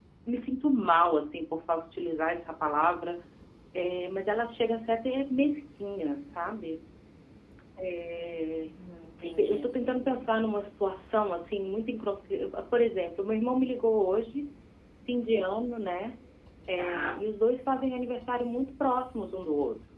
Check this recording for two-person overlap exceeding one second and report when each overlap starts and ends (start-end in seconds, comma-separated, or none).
none